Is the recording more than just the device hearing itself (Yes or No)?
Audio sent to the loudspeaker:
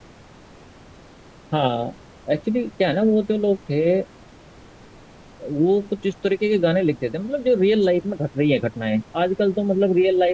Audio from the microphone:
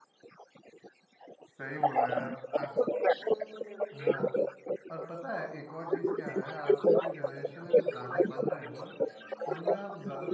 Yes